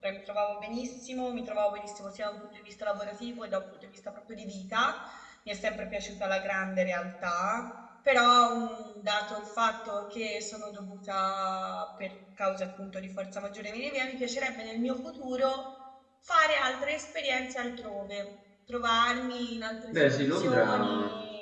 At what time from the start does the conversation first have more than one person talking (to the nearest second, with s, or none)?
20 s